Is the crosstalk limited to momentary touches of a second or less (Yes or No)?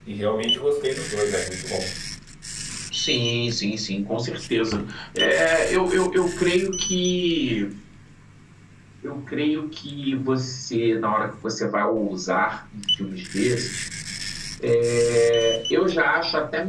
Yes